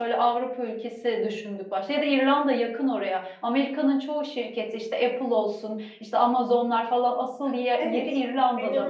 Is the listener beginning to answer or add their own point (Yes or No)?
Yes